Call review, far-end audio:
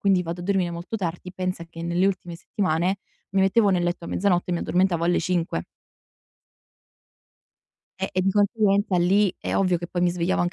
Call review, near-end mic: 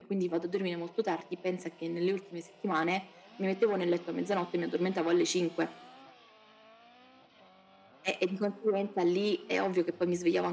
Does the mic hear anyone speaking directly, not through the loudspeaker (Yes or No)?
No